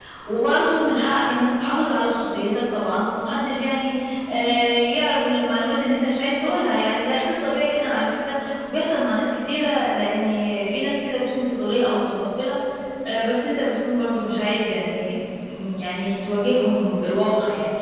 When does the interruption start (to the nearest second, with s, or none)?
none